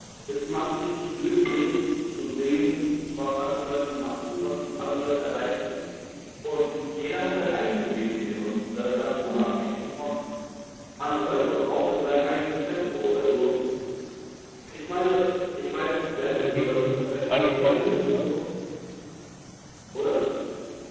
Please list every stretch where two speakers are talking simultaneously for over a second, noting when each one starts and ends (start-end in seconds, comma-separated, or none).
16.4-18.3